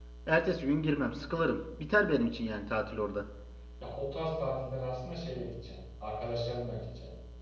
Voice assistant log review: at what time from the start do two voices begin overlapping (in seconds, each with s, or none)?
none